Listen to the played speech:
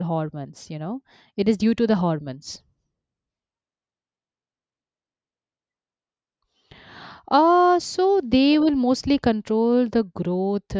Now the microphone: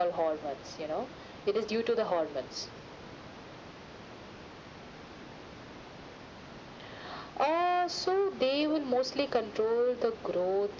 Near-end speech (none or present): none